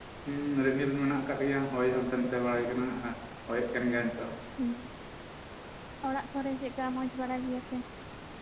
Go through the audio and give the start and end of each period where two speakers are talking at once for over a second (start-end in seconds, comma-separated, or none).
none